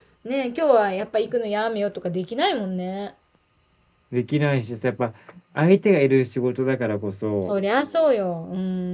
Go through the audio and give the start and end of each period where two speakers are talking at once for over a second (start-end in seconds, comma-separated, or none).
none